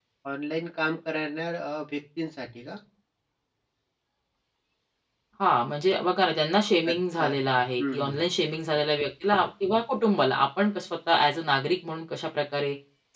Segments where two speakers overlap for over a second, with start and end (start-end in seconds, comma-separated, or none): 6.9-8.2